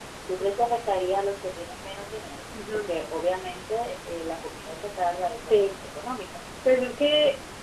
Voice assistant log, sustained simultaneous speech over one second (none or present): none